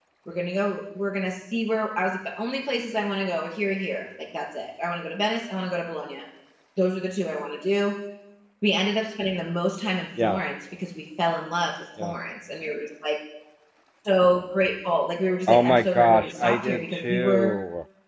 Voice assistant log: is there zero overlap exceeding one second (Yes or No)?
No